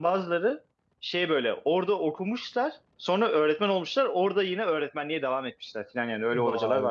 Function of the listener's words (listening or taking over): taking over